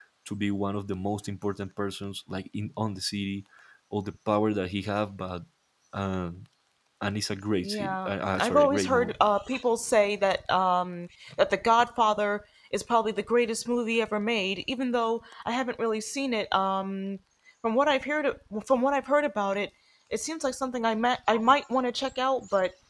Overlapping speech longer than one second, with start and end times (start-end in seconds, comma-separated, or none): 7.6-9.2